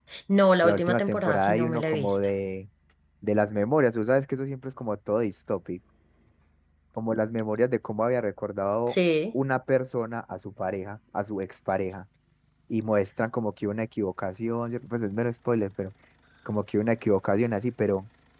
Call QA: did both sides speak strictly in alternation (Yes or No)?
No